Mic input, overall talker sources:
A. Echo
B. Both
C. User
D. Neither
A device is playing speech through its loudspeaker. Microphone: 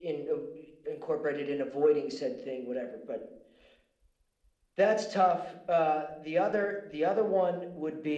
A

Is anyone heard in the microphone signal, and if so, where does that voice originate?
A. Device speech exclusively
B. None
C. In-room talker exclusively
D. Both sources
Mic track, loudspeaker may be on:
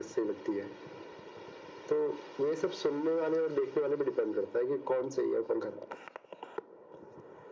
A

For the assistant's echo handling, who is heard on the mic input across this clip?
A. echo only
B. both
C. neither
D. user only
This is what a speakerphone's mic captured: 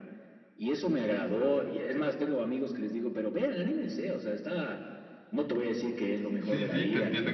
B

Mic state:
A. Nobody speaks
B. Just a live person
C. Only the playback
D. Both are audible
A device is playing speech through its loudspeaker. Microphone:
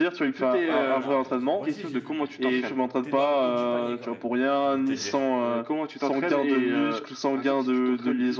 D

